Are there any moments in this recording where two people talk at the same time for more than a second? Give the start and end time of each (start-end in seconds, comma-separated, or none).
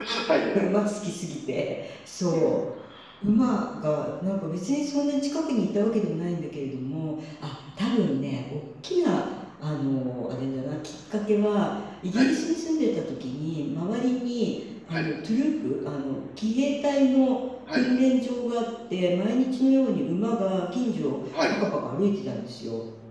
none